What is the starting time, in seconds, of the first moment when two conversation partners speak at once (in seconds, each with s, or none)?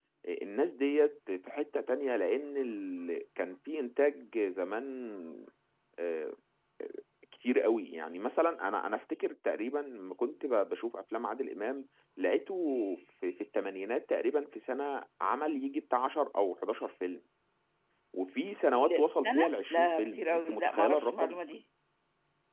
18.7 s